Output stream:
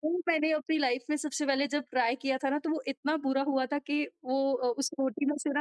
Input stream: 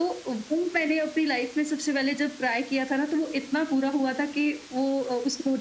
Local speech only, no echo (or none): none